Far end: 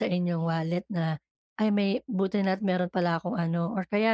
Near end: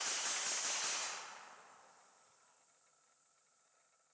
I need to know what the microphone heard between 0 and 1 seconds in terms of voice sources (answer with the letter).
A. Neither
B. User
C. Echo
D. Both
A